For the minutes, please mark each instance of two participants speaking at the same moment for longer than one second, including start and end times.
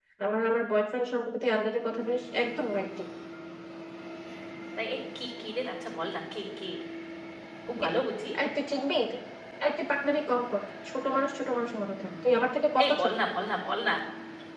none

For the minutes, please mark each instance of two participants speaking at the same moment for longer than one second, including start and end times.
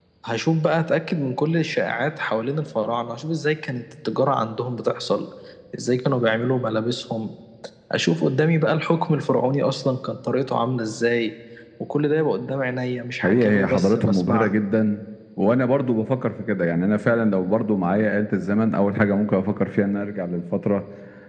13.2-14.6

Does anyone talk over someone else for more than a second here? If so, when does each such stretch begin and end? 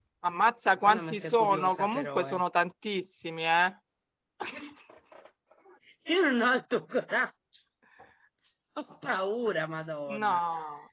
0.8-2.4

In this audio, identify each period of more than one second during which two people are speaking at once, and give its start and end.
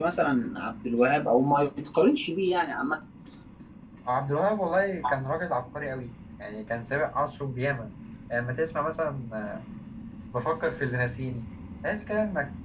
none

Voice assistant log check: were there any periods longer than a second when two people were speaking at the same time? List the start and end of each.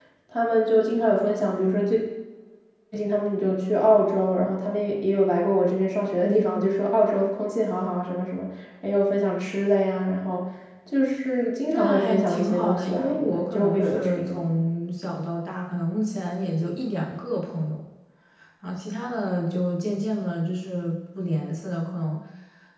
11.7-14.4

